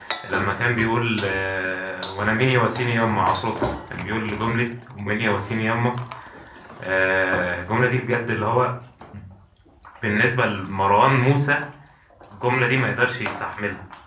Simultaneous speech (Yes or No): No